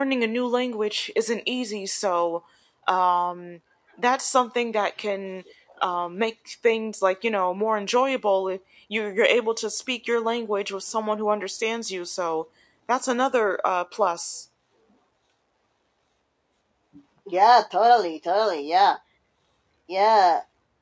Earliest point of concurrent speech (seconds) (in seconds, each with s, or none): none